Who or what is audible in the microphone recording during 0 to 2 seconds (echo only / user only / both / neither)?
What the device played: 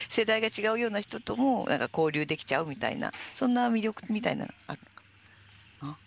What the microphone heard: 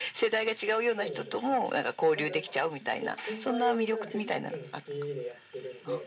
both